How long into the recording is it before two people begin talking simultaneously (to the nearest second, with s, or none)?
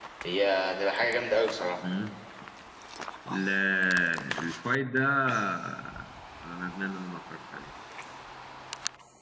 none